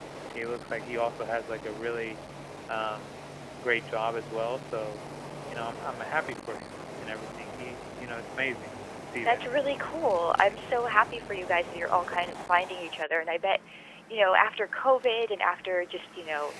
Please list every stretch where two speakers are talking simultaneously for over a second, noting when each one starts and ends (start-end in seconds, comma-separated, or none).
none